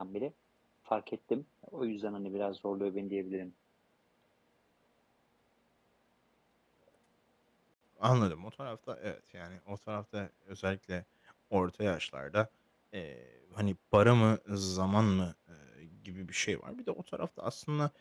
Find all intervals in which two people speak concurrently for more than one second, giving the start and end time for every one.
none

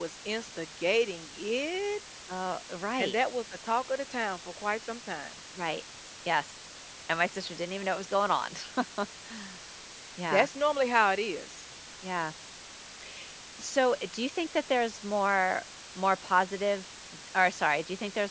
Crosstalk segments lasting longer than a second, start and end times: none

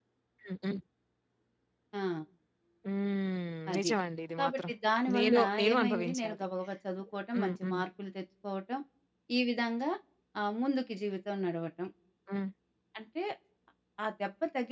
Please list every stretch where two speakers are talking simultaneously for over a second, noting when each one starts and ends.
5.2-6.5

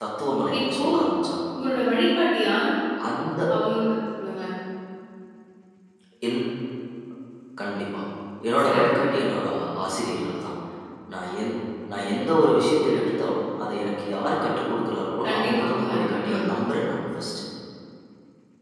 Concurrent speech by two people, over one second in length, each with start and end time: 15.2-16.5

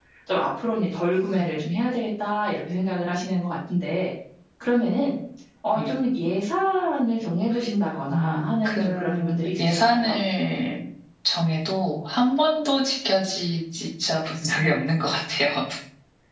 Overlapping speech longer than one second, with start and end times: 8.1-10.2

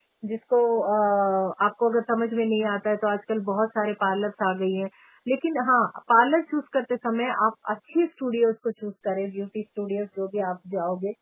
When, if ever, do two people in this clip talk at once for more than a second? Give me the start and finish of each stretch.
none

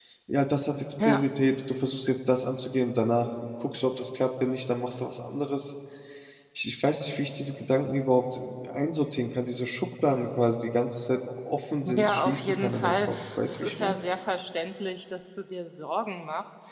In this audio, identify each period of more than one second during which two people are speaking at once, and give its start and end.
11.8-14.0

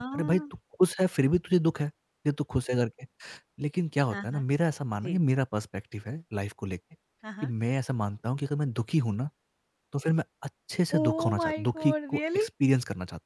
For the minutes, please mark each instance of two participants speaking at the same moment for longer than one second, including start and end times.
11.0-12.5

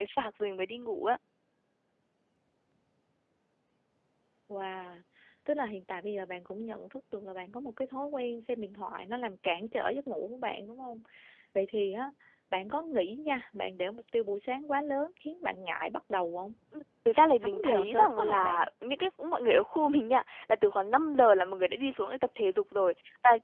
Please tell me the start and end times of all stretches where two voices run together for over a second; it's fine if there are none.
17.4-18.6

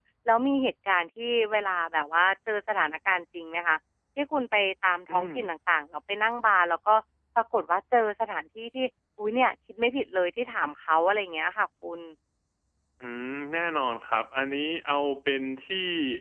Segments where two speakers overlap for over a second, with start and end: none

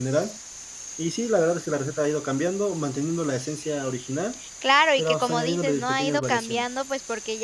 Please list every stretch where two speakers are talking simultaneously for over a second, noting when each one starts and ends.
5.0-6.6

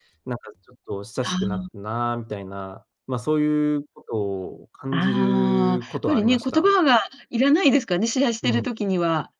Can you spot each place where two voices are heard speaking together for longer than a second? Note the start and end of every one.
4.9-6.7

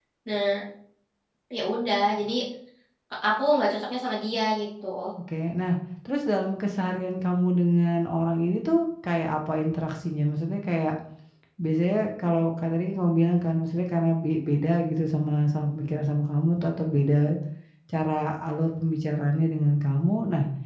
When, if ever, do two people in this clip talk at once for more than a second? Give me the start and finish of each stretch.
none

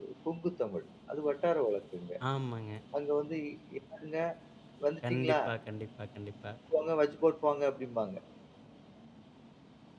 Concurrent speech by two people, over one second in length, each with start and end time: none

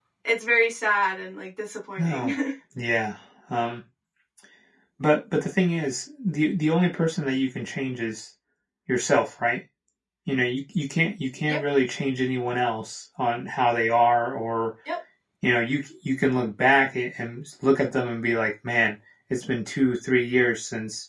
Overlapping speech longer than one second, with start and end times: none

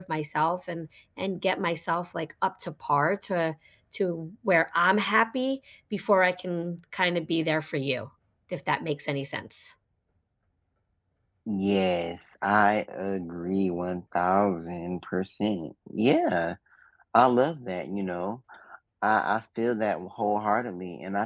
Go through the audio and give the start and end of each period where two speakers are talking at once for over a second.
none

